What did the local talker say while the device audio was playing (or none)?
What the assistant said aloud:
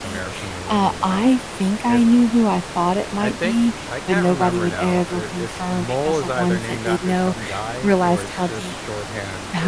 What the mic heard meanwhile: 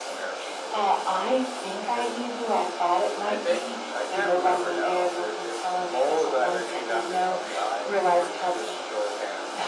none